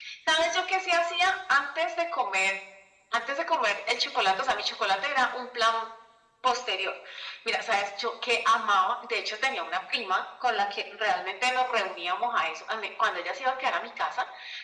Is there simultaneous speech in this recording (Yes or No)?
No